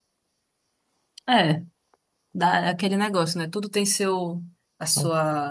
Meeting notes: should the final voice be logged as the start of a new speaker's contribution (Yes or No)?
No